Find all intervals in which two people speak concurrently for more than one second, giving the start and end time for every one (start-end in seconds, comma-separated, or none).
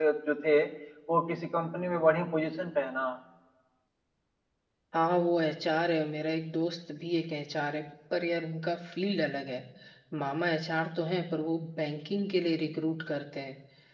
none